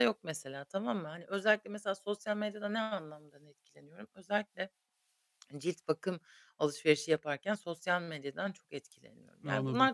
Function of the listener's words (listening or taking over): listening